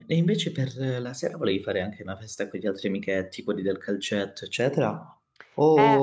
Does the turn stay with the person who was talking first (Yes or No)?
No